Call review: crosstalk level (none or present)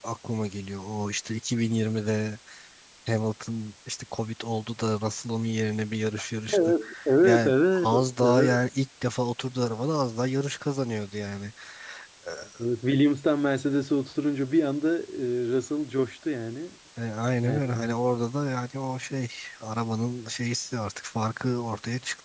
present